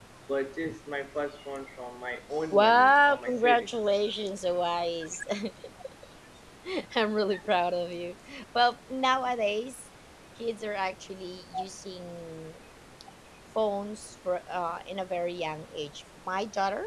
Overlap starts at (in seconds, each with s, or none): 2.5 s